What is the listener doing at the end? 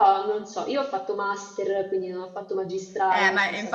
taking over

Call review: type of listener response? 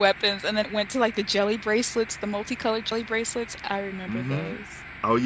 taking over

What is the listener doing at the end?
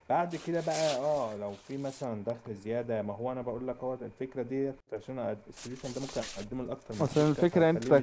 taking over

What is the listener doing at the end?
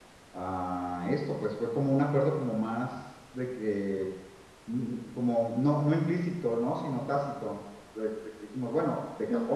listening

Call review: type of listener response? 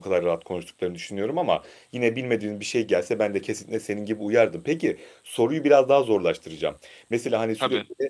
listening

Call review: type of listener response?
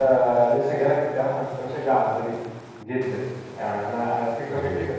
listening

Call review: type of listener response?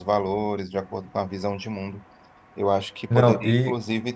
listening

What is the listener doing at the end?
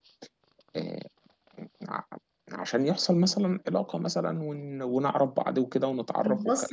taking over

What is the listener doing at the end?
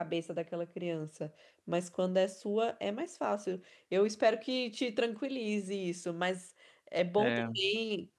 listening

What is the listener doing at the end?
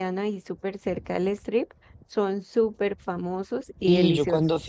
taking over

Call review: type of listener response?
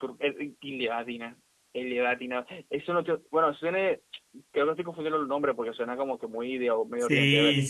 taking over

